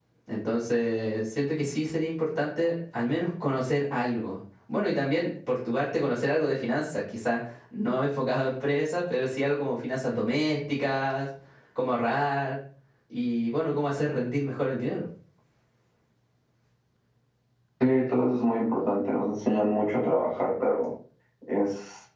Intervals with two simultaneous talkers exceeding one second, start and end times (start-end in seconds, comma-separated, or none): none